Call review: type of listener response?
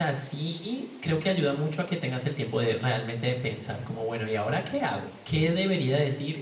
listening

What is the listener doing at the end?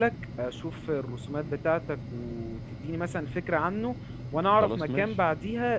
listening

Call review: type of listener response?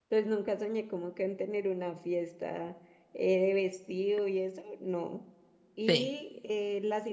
listening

